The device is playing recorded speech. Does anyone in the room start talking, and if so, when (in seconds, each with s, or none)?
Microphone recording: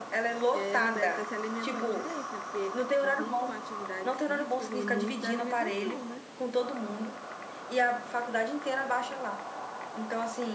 0.5 s